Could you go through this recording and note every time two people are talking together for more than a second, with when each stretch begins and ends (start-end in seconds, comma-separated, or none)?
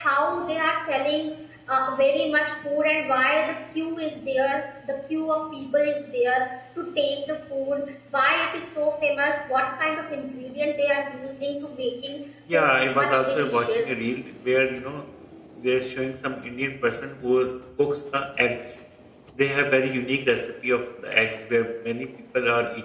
12.5-13.9